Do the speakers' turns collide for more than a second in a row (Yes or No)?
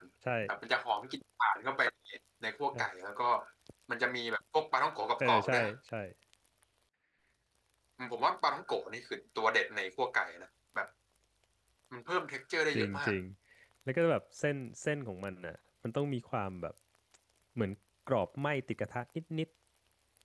No